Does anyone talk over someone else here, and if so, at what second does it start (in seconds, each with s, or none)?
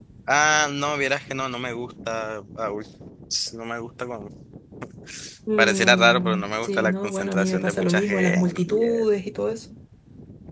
5.6 s